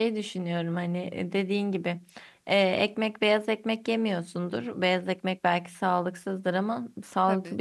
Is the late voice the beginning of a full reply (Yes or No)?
No